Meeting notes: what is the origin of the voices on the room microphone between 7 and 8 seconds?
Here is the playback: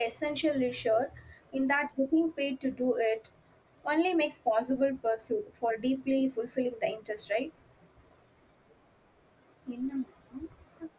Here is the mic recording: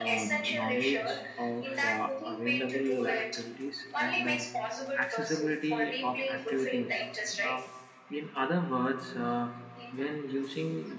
both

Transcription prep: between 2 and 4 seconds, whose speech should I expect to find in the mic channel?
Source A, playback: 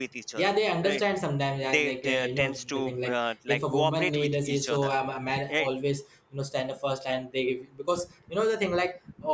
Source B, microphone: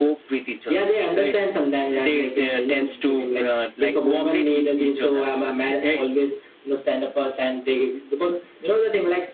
echo only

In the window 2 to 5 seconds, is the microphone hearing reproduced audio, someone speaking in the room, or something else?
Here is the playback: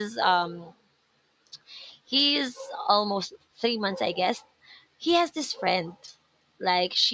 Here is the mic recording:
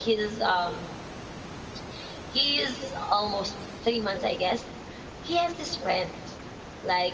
echo only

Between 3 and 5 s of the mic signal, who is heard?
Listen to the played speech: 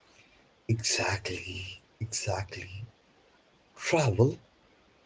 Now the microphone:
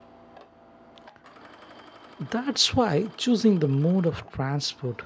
user only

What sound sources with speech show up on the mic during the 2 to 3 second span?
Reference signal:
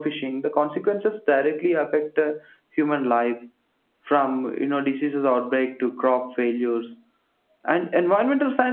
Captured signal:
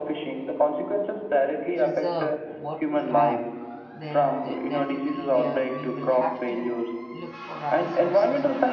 both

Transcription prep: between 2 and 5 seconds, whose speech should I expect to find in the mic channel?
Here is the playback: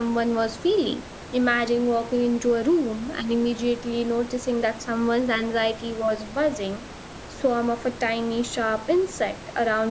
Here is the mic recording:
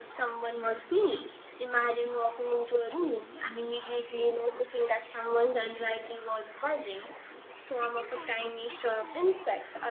echo only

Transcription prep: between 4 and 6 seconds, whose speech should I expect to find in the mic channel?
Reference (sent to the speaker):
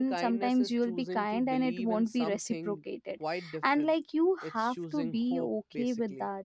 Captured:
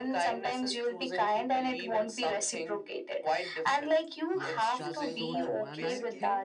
both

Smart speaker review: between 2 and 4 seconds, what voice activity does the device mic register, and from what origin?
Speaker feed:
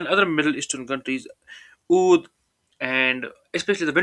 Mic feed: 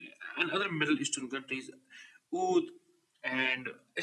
echo only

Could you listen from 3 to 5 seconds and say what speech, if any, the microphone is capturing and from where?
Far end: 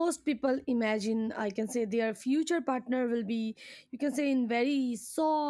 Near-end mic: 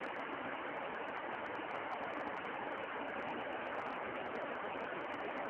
neither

